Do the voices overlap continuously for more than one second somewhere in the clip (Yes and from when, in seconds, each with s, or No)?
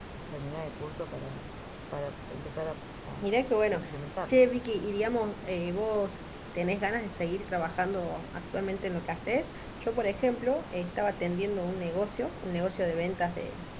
No